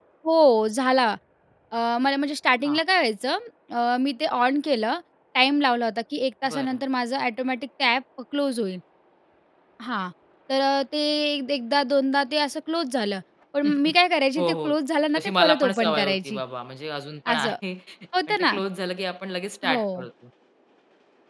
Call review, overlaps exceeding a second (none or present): present